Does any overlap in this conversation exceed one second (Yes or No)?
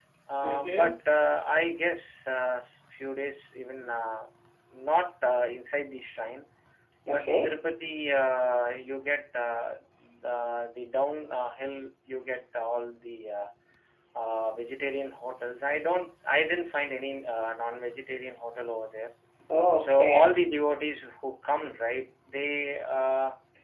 No